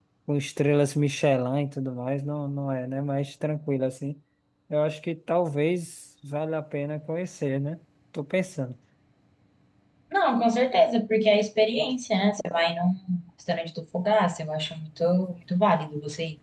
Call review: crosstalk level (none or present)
none